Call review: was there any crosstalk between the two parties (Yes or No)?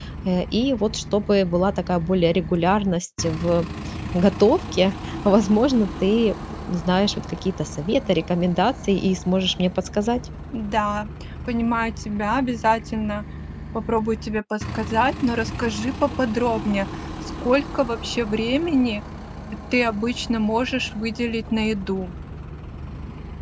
No